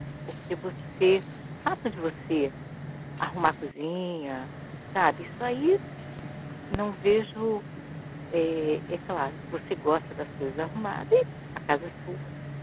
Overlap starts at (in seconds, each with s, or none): none